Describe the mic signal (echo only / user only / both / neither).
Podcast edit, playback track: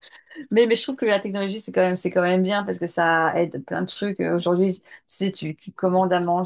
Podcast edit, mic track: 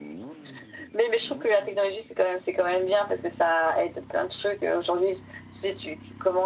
echo only